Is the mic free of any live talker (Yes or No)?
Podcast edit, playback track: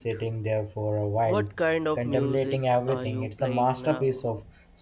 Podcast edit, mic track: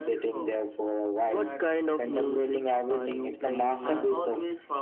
No